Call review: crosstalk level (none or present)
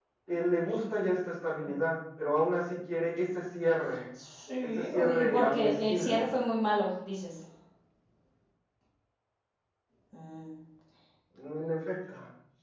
present